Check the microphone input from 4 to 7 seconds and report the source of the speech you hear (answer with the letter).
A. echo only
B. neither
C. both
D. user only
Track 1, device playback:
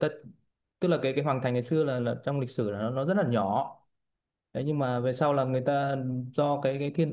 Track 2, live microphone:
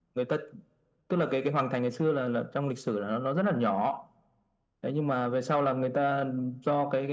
A